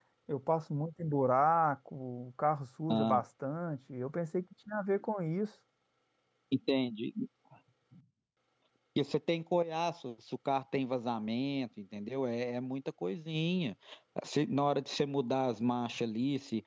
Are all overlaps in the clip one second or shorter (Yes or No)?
Yes